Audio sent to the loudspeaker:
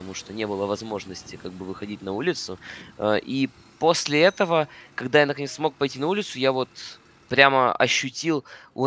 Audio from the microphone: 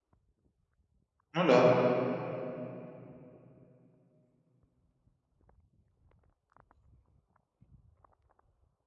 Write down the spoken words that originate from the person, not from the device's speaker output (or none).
ну да,